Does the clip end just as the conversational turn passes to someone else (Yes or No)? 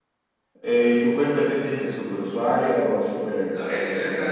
Yes